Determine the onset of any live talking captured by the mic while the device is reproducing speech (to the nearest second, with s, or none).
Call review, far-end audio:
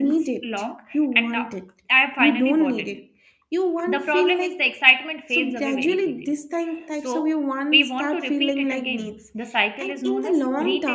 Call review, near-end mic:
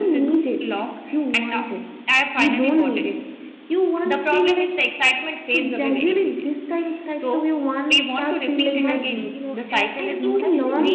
9 s